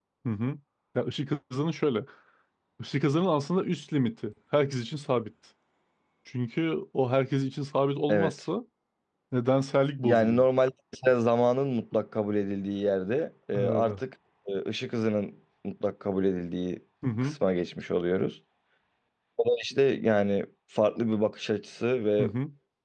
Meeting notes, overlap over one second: none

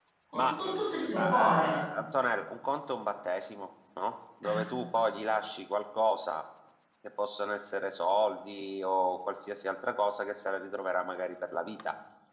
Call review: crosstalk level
present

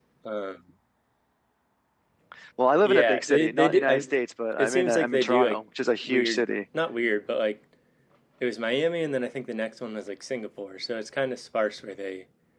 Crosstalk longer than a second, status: present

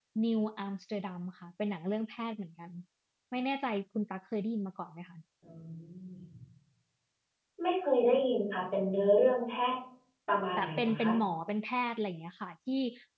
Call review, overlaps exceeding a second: none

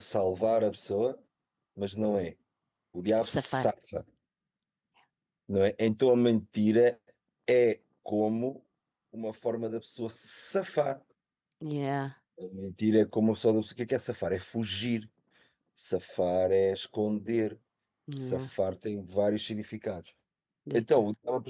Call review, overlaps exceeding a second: none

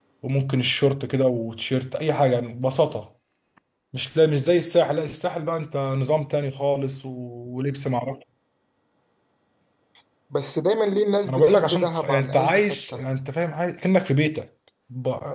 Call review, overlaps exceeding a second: present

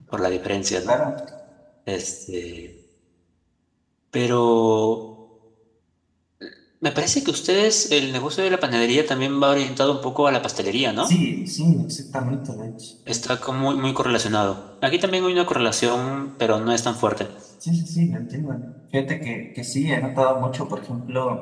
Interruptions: none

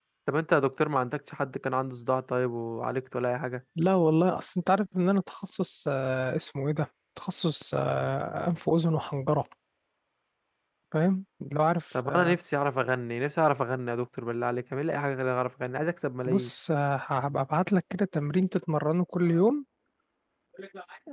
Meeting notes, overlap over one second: none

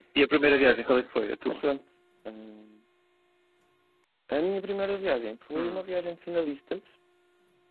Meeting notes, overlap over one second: none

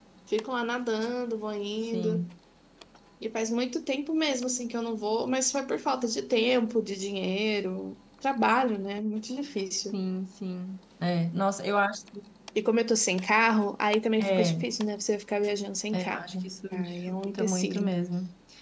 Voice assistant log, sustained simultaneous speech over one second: present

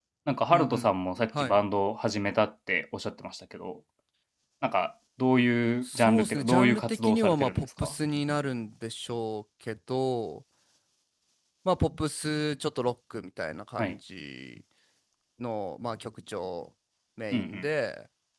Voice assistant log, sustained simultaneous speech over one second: present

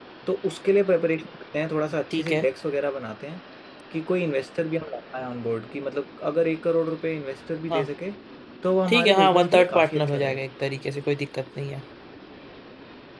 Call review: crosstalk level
present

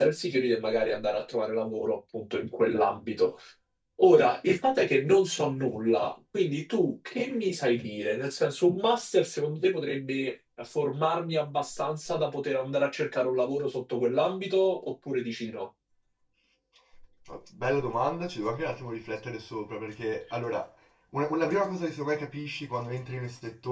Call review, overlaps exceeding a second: none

